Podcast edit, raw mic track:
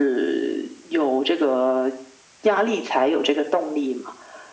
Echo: present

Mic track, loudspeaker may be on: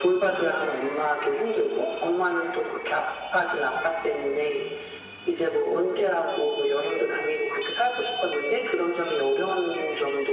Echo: present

